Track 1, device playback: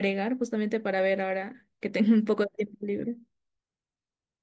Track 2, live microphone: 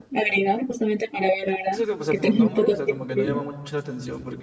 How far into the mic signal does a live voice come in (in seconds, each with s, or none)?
1.7 s